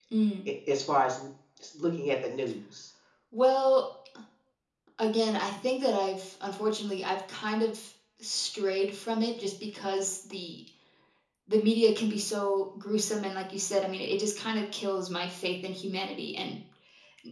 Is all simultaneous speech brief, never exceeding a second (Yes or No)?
Yes